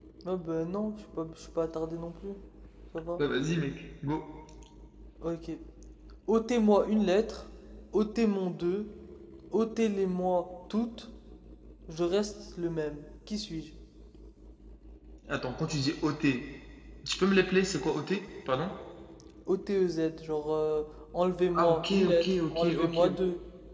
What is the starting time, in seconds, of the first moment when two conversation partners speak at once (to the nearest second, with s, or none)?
22 s